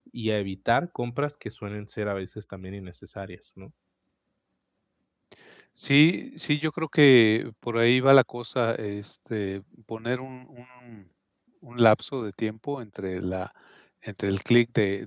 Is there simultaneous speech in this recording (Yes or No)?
No